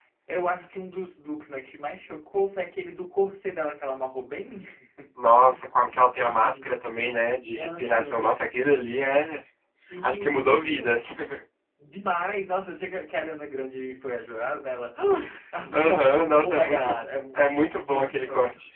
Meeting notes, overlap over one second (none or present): present